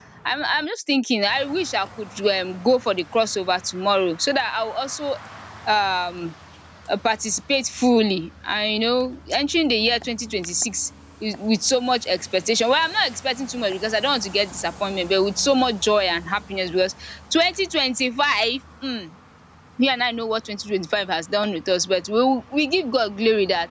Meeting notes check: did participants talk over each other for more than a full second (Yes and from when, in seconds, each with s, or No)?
No